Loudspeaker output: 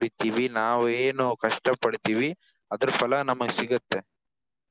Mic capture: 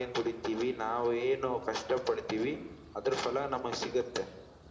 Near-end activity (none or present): none